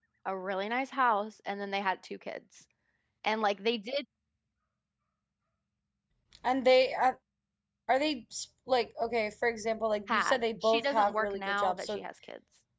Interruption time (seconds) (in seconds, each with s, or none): 10.1 s